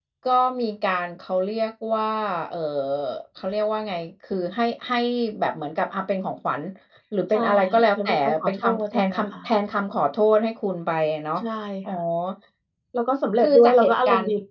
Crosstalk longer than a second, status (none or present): present